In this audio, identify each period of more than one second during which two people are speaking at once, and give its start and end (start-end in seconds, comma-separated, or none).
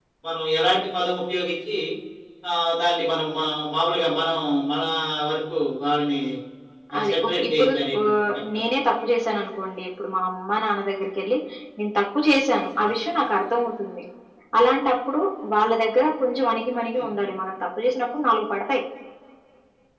7.0-8.6